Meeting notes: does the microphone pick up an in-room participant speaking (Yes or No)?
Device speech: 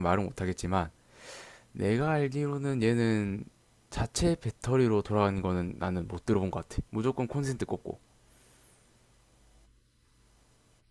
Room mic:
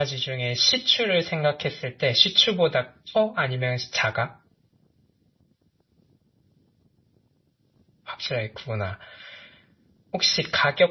Yes